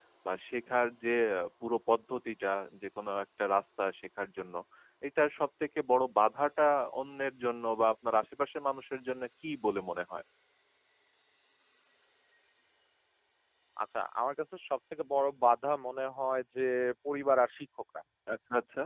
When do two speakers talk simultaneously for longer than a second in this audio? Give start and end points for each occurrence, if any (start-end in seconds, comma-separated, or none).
none